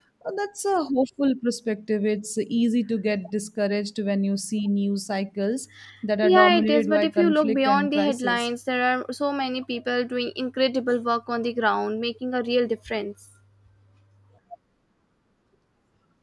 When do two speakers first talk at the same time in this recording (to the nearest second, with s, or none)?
6 s